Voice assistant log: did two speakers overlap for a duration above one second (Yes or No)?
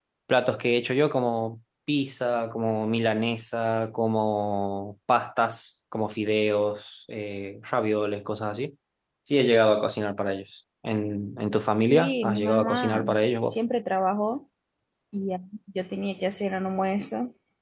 Yes